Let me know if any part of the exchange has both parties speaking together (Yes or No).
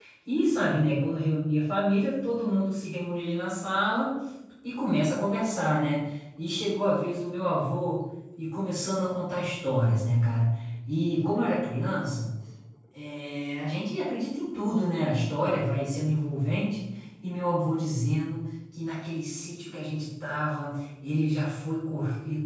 No